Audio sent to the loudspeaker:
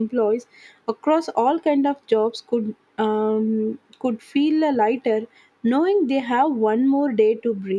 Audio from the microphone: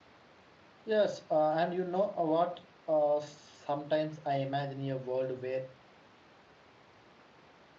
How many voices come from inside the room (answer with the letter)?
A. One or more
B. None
A